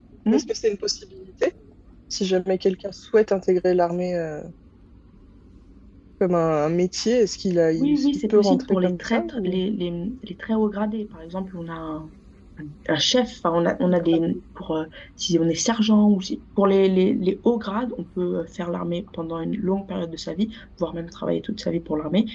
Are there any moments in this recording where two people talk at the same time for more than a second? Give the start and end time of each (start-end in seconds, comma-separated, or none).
7.8-9.6